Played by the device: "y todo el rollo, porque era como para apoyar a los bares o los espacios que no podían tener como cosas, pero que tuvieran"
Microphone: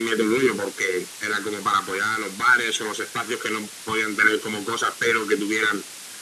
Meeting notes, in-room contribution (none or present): none